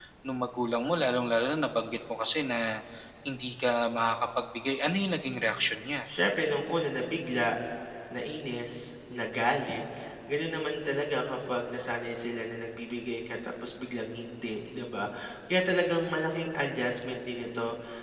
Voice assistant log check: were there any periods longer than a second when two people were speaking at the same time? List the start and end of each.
none

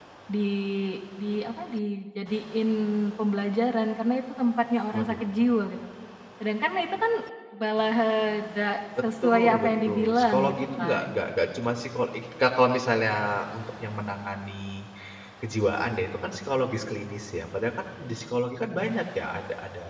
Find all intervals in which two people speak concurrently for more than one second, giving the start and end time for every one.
9.2-11.2

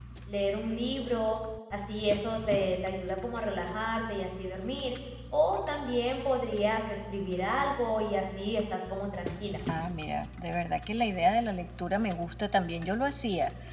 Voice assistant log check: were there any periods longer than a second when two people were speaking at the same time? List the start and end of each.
none

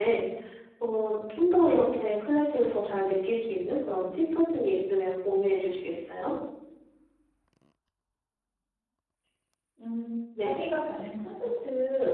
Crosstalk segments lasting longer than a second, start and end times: none

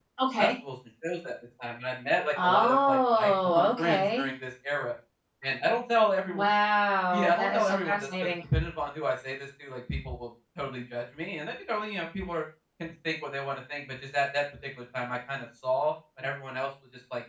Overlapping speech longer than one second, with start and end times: 2.4-4.3, 7.1-8.4

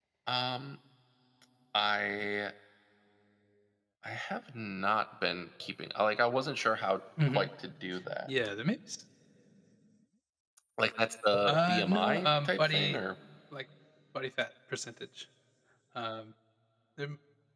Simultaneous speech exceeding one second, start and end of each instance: 11.4-13.0

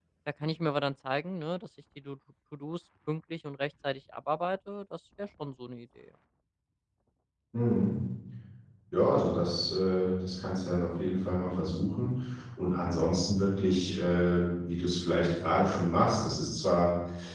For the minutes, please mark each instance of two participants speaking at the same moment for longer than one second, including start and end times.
none

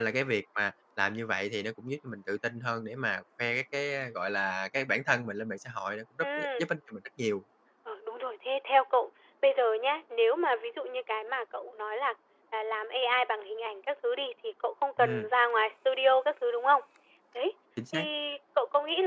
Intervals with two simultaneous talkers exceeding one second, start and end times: none

